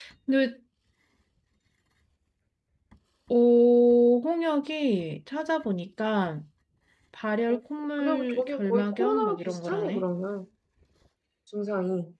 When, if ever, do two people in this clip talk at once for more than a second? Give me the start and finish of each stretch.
8.0-10.0

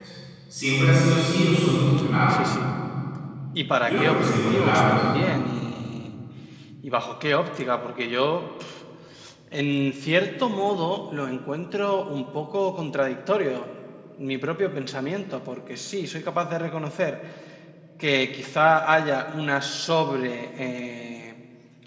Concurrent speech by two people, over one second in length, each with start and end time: 3.8-5.0

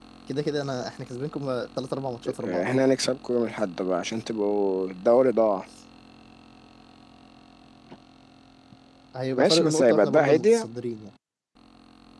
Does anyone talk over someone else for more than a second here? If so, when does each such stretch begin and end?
9.4-10.7

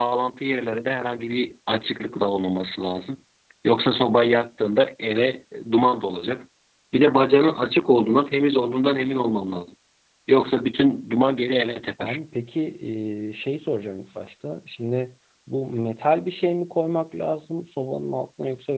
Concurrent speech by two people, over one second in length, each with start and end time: none

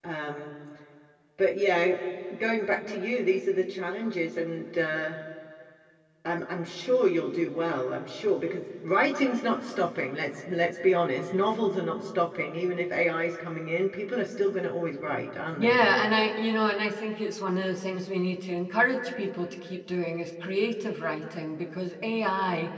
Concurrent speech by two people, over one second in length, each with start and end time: none

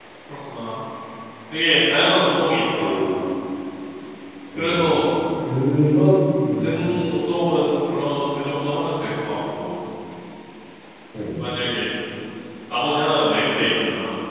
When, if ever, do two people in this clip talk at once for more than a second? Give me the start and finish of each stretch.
none

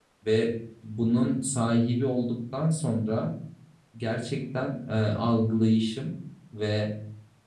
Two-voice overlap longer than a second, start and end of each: none

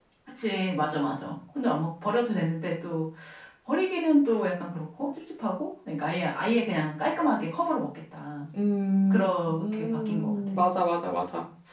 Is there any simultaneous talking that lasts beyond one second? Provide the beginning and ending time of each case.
9.1-10.6

